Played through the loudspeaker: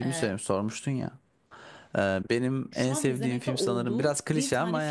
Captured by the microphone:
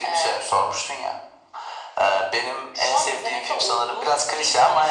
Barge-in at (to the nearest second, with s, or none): none